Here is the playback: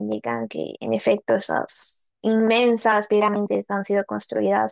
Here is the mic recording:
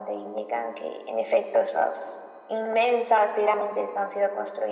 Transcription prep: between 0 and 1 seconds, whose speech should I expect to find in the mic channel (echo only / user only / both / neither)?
echo only